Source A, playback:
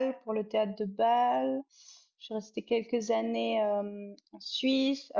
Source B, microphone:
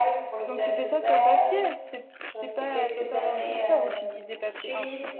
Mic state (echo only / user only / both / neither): both